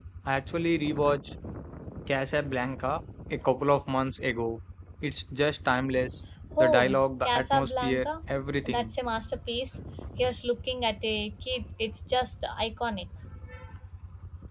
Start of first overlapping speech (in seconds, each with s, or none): 6.6 s